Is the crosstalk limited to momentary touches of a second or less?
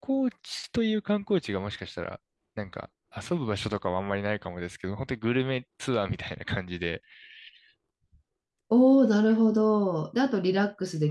Yes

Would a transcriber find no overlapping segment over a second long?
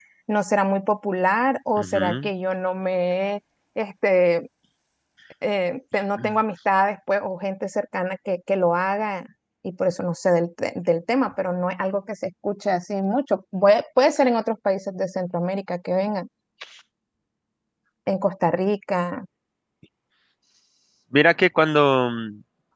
Yes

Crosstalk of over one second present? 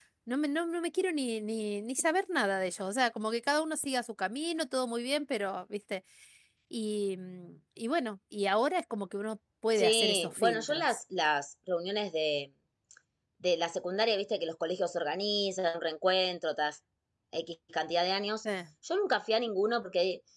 Yes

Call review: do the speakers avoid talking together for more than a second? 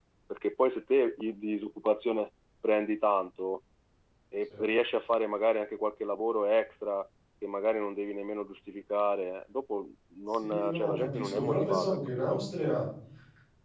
No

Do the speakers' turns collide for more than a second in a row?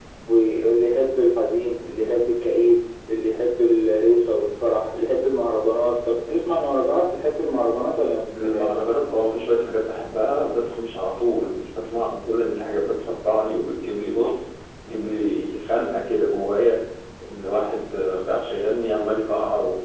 No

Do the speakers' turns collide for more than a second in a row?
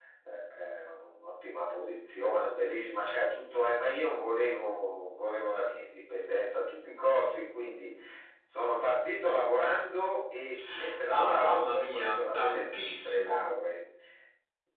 Yes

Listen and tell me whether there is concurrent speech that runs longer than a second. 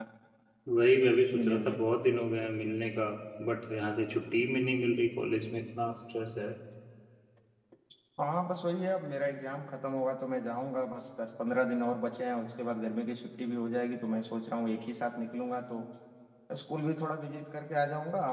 No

